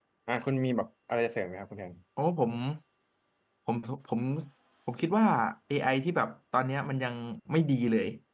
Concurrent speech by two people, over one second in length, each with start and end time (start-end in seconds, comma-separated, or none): none